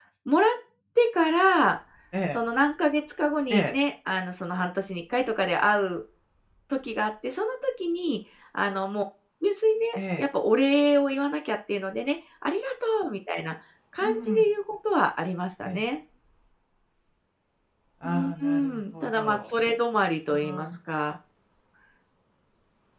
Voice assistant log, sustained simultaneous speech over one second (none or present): present